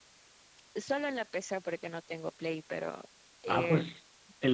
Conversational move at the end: taking over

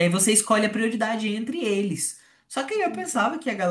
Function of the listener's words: listening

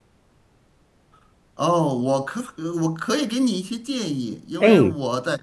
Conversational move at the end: listening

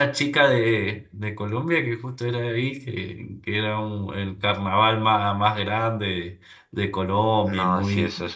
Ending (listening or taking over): taking over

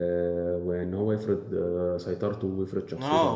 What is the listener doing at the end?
taking over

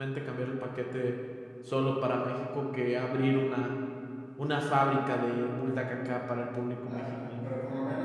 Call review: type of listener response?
taking over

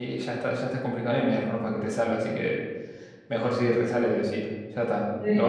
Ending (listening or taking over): taking over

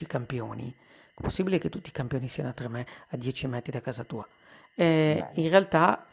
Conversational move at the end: listening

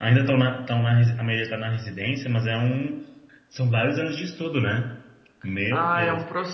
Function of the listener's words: taking over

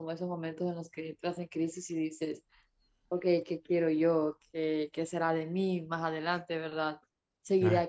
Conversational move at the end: listening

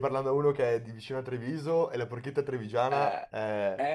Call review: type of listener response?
taking over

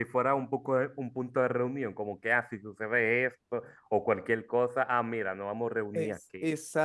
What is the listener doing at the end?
taking over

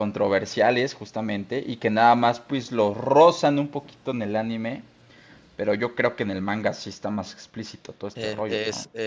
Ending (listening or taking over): taking over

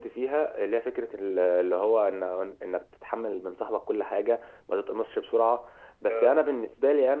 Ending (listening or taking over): listening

